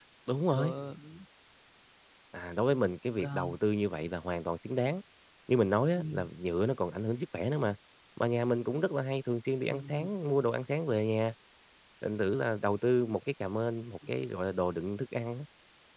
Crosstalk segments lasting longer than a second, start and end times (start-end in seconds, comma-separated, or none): none